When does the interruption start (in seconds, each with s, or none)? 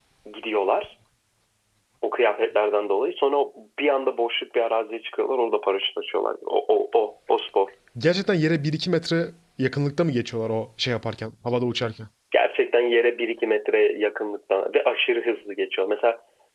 none